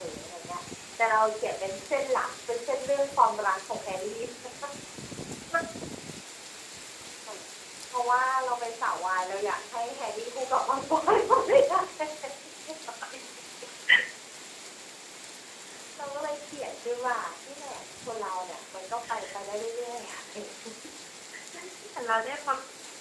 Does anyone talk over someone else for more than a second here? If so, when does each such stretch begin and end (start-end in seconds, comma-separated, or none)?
none